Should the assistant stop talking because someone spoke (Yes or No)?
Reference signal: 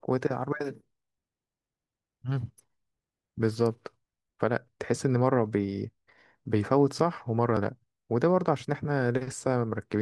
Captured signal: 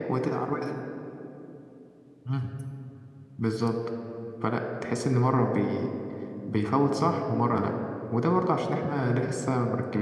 No